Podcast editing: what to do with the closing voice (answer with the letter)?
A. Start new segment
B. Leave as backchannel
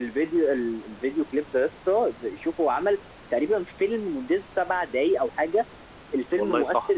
B